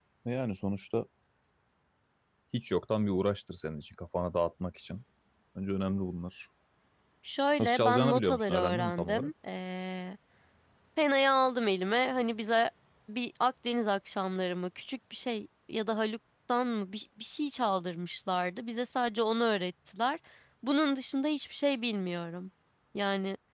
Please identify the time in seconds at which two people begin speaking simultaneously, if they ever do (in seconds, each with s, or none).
7.6 s